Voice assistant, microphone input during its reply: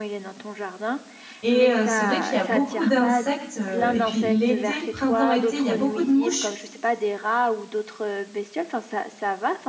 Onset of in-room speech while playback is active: 1.4 s

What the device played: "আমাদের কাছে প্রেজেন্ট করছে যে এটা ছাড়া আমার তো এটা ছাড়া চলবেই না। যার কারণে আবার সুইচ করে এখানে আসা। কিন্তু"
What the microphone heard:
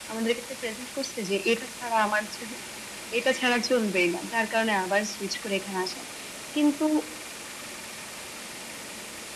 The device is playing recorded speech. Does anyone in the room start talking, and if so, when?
none

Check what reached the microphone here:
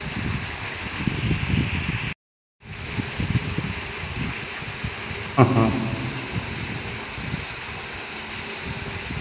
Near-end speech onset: 5.4 s

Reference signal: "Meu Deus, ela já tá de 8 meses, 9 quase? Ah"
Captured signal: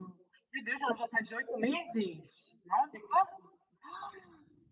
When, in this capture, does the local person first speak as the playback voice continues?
none

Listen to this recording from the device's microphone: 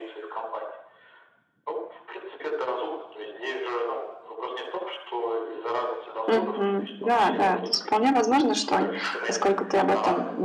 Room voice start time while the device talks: 6.3 s

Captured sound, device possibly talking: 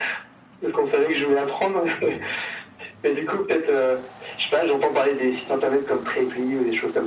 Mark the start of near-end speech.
none

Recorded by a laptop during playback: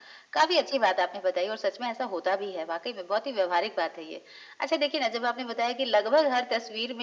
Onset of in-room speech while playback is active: none

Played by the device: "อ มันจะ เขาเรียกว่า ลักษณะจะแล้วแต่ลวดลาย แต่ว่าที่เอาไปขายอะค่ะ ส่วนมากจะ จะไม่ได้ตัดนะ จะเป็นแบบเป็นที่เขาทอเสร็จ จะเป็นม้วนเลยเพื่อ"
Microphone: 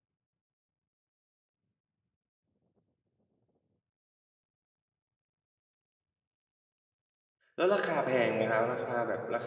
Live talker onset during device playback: 7.5 s

